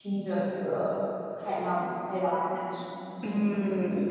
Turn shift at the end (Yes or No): Yes